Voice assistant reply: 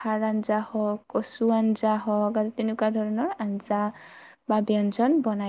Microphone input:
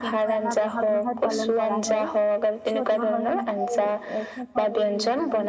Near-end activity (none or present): present